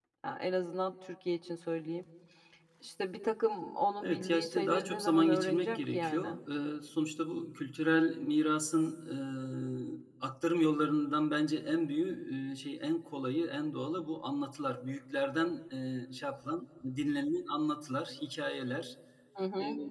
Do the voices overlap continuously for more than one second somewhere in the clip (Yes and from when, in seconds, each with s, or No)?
Yes, from 4.0 s